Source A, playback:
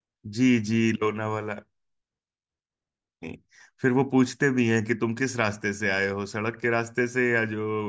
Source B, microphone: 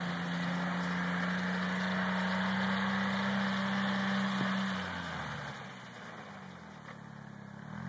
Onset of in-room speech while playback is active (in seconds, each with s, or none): none